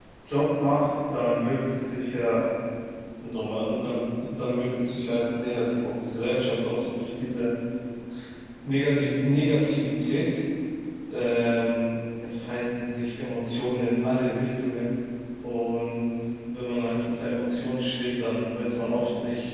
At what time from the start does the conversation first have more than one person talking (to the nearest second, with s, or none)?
none